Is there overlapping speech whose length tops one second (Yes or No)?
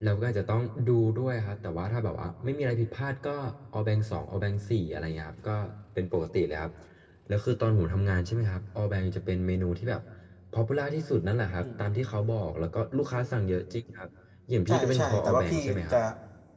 Yes